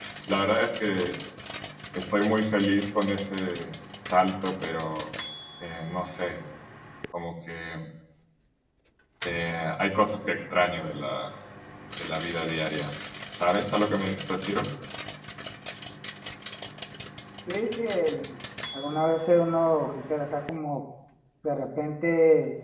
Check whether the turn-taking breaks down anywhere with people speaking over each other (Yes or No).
No